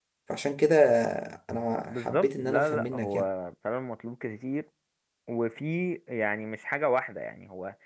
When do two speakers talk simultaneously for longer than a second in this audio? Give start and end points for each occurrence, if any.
1.9-3.2

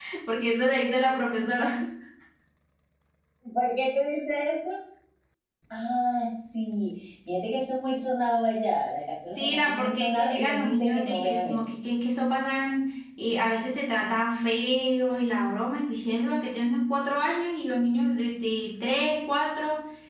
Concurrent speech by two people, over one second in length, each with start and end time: 9.4-11.6

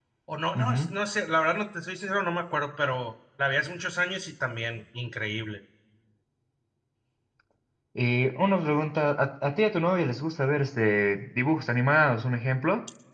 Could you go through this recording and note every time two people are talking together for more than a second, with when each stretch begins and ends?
none

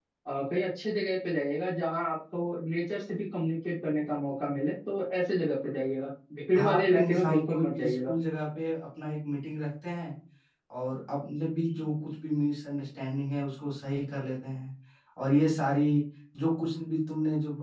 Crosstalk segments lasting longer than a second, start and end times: 6.5-8.1

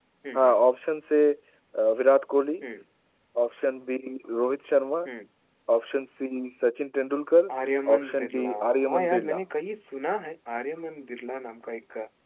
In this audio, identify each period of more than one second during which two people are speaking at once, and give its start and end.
8.0-9.4

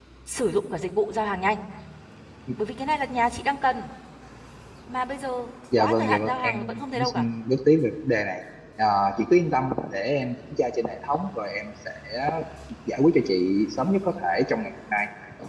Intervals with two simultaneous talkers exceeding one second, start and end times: 5.8-7.2

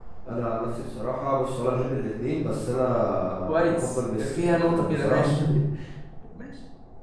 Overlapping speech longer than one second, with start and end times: 3.3-5.2

